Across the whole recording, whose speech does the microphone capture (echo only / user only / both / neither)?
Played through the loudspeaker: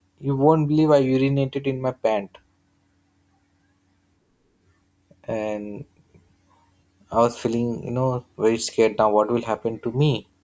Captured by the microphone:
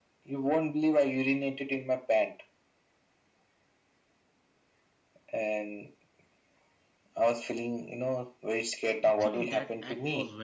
both